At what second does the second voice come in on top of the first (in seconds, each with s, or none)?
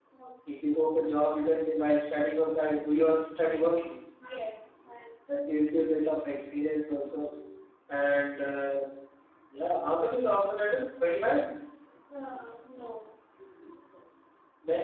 none